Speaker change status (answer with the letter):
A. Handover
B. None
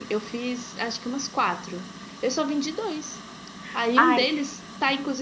B